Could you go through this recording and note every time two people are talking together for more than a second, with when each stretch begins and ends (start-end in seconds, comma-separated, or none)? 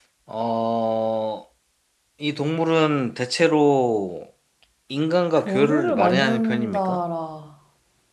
5.4-7.0